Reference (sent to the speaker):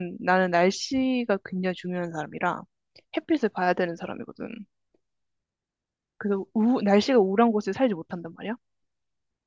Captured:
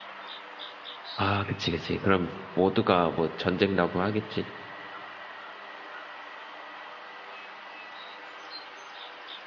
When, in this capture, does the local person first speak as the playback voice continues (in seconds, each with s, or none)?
1.2 s